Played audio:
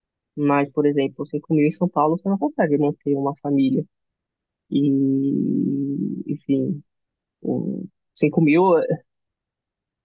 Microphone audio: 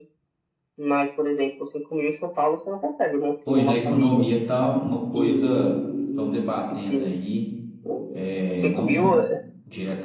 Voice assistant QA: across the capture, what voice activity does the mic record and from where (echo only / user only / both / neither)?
both